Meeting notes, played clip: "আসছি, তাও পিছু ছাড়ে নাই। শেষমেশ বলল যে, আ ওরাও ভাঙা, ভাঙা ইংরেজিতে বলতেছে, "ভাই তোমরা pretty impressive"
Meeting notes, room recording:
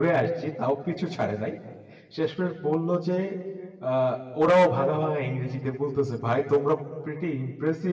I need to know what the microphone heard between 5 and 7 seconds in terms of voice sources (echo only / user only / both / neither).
echo only